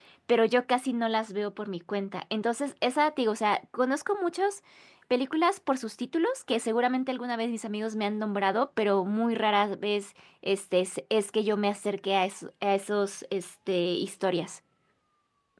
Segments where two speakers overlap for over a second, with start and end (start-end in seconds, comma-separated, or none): none